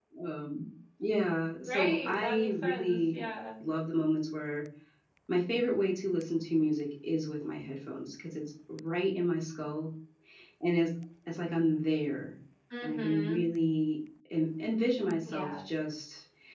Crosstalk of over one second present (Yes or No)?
Yes